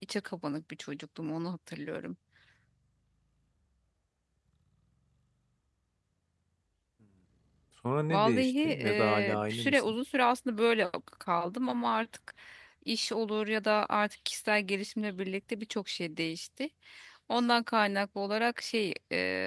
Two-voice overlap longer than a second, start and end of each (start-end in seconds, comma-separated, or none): 8.1-9.8